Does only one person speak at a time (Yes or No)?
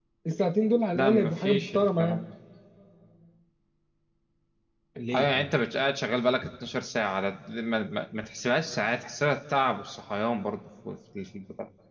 No